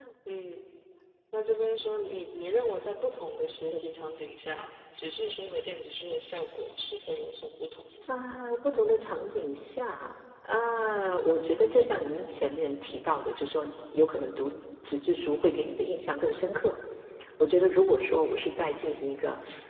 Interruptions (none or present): none